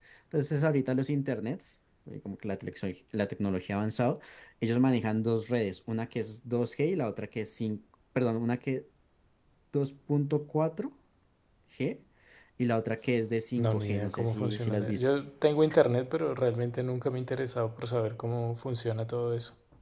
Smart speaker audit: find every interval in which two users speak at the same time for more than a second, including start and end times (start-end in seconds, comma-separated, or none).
13.6-15.1